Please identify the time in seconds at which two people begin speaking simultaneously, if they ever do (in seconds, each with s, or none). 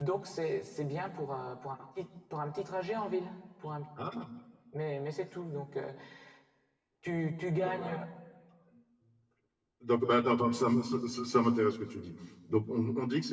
none